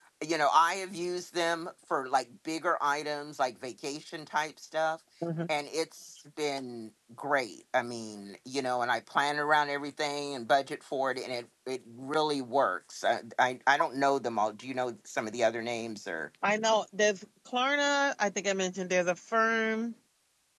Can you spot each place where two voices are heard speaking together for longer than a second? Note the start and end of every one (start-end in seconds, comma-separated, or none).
none